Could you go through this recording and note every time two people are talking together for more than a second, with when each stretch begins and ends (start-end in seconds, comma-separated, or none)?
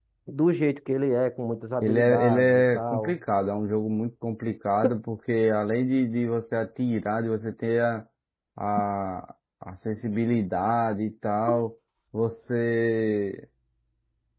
1.8-3.2